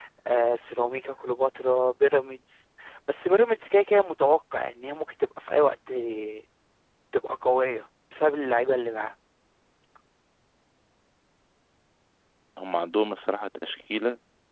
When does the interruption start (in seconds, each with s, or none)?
none